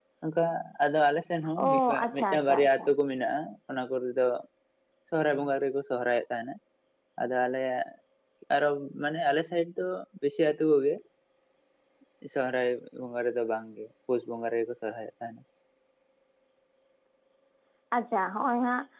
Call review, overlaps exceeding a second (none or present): present